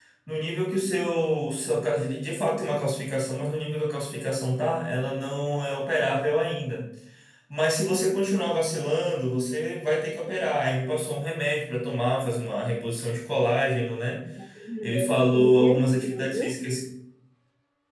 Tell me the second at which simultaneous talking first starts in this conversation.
15 s

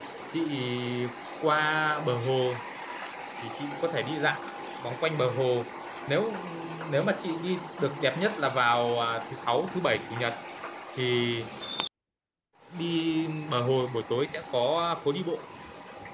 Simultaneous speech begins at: none

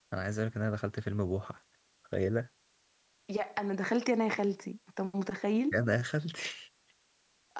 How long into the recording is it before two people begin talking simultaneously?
none

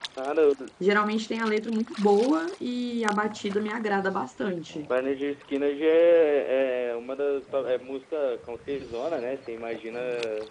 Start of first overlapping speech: none

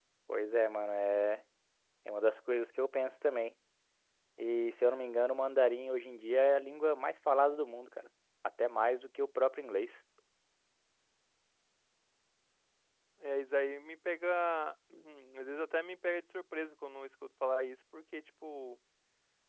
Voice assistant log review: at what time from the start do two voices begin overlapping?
none

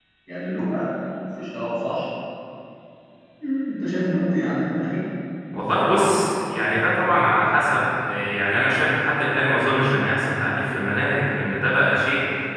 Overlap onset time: none

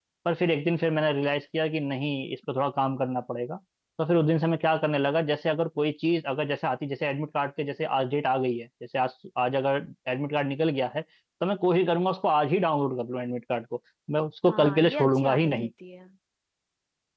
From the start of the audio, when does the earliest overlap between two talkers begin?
14 s

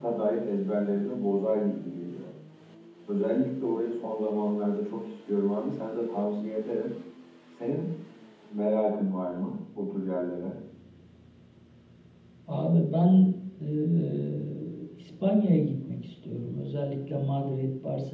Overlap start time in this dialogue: none

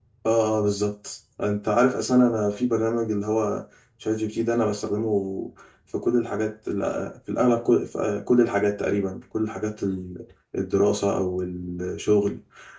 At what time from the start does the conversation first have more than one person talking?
none

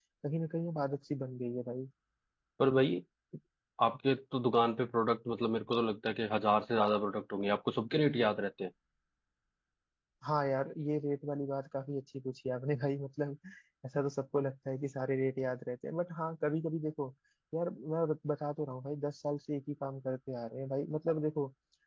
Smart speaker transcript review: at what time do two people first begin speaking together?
none

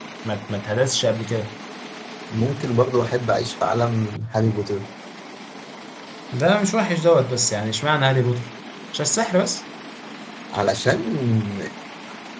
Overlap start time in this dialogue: none

